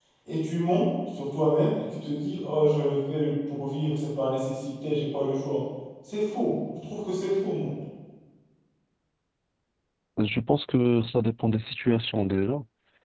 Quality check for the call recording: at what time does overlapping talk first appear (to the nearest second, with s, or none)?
none